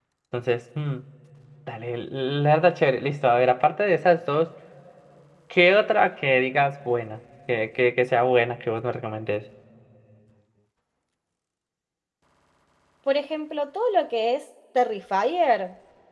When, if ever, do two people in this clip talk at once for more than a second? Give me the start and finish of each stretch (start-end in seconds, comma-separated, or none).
none